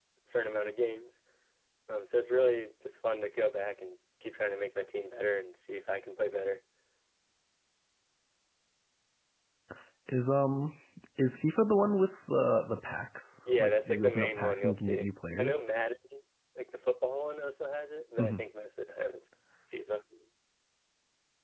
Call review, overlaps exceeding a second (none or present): present